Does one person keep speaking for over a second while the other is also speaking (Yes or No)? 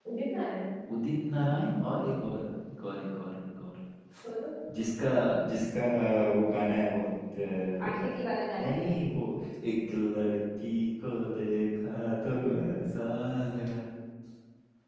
No